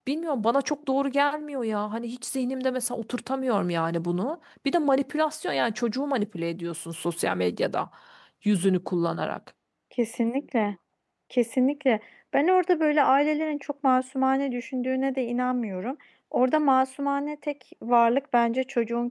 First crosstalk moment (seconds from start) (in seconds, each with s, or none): none